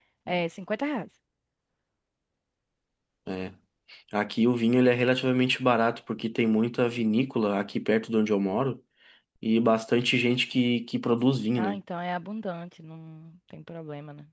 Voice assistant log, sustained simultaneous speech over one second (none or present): none